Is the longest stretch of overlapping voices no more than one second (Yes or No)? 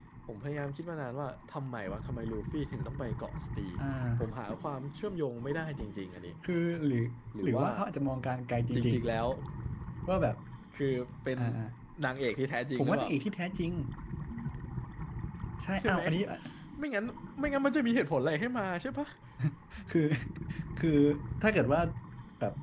Yes